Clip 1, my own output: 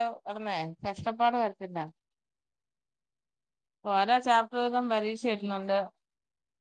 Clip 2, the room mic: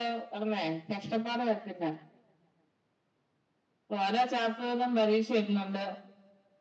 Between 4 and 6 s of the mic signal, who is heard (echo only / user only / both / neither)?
echo only